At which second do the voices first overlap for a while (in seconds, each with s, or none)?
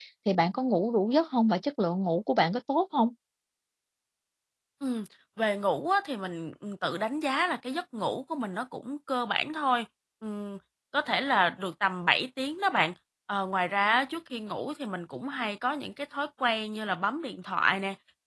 none